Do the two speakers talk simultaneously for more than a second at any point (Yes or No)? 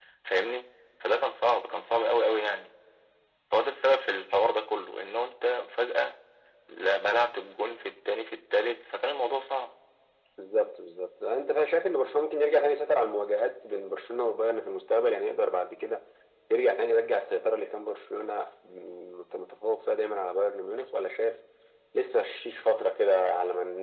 No